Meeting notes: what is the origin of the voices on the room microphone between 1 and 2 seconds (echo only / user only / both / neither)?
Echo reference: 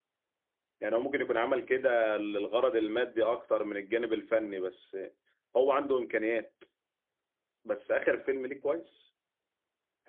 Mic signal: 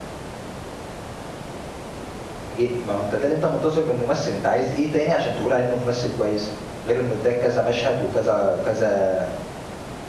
neither